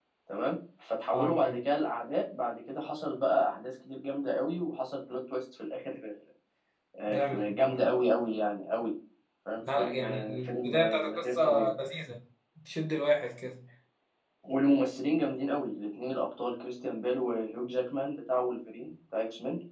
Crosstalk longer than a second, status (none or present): present